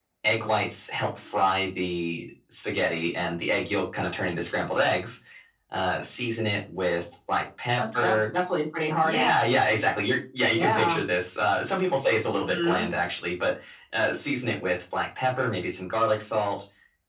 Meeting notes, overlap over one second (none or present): none